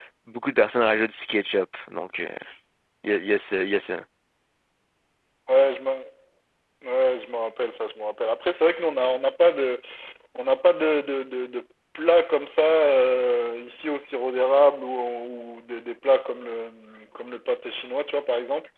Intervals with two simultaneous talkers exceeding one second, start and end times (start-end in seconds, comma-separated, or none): none